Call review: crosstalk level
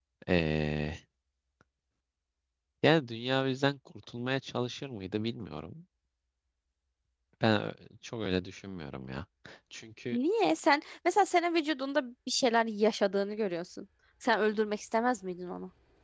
none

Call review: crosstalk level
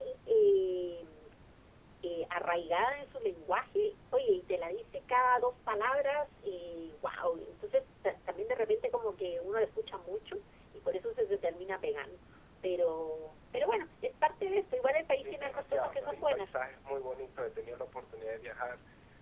present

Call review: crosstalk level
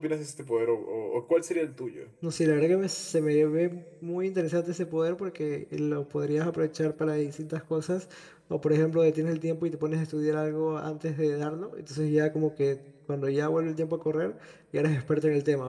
none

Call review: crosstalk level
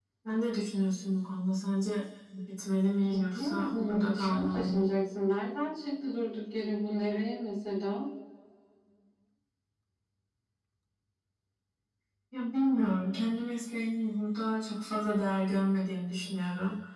present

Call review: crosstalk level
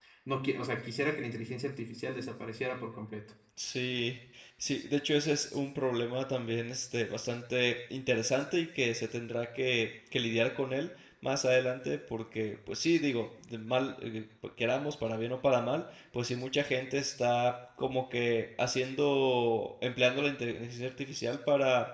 none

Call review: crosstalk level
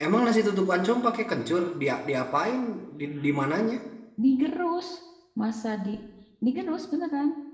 none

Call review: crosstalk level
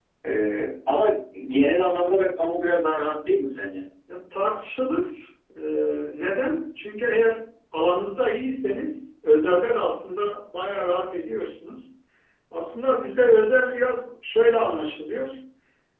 none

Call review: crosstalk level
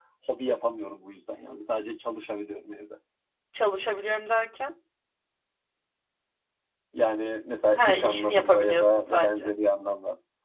present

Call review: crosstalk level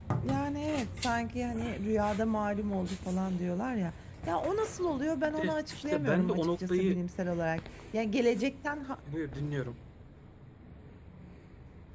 present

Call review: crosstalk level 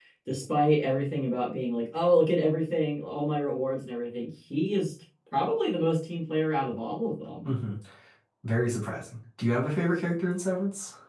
none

